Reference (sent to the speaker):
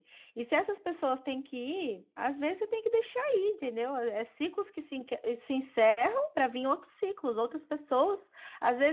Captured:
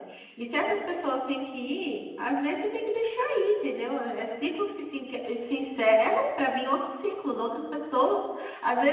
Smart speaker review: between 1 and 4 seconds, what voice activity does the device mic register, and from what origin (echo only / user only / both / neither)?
echo only